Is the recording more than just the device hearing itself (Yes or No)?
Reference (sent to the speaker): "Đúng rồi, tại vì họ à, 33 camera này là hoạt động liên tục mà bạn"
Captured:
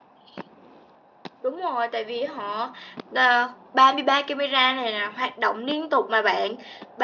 No